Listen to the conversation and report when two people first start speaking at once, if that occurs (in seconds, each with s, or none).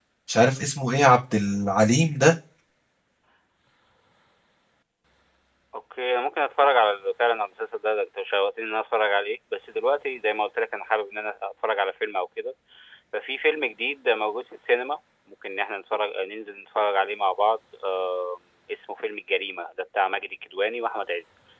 none